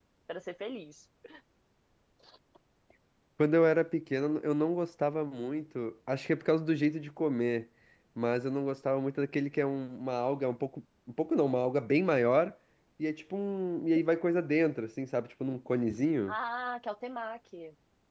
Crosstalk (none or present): none